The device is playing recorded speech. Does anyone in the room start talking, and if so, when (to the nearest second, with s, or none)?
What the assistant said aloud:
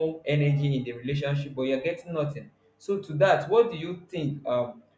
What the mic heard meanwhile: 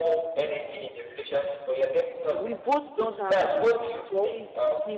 2 s